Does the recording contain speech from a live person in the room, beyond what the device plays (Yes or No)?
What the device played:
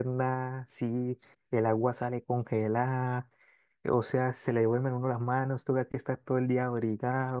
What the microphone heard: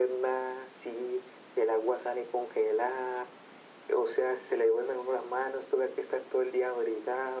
No